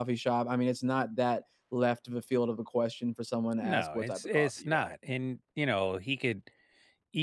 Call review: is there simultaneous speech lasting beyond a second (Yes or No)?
Yes